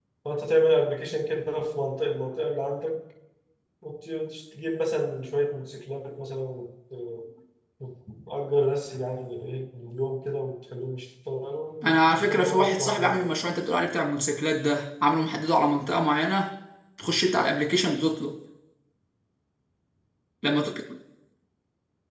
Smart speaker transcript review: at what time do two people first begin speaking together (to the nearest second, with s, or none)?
12 s